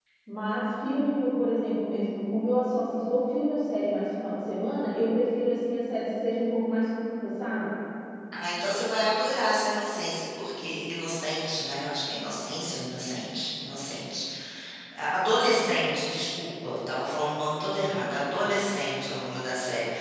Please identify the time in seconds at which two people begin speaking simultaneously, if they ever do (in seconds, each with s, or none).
none